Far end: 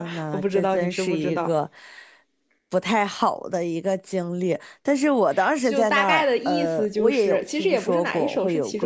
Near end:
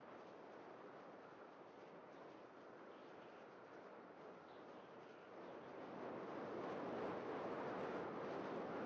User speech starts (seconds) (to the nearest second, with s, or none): none